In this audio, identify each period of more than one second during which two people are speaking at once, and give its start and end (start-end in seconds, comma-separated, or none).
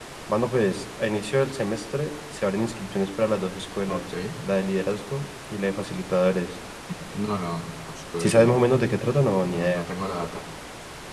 none